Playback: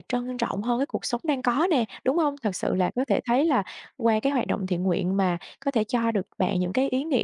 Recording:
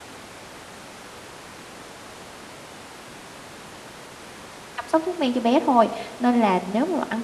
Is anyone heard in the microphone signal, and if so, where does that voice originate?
user only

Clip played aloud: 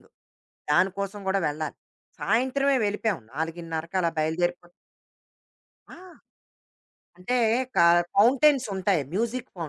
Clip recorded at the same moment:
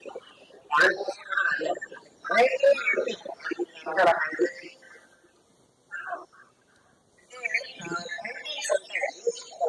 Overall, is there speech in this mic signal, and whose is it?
echo only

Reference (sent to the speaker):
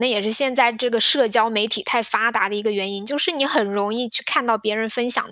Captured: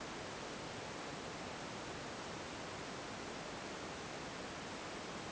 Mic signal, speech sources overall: neither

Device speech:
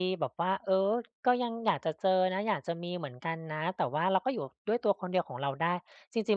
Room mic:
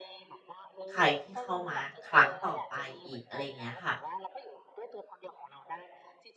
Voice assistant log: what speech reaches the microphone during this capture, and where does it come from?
both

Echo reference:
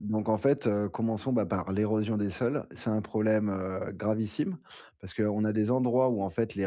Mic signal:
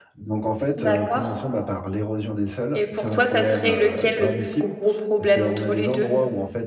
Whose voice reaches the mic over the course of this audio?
both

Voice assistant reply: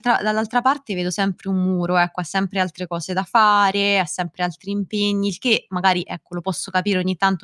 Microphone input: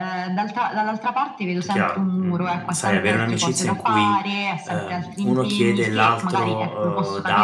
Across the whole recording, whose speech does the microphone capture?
both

